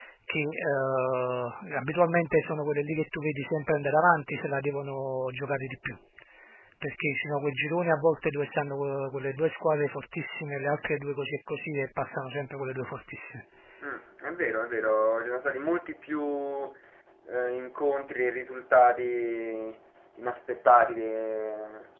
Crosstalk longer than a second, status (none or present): none